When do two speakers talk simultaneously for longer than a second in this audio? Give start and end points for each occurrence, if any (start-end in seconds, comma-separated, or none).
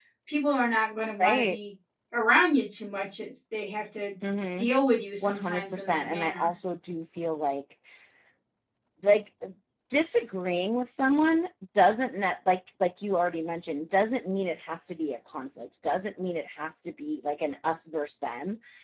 5.2-6.5